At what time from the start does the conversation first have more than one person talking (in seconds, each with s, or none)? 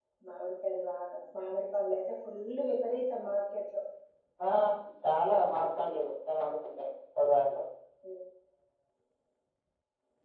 none